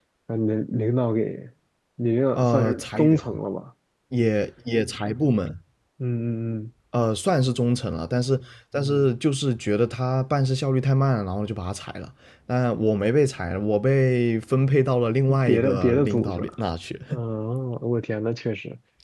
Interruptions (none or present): present